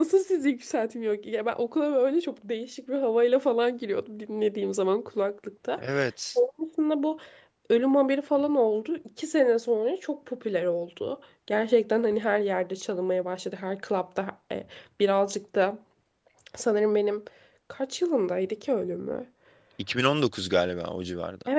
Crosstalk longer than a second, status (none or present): none